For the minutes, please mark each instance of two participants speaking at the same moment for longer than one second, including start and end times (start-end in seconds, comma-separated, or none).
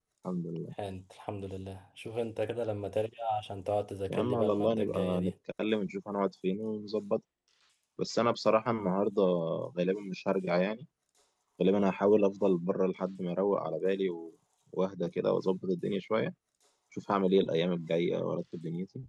4.1-5.3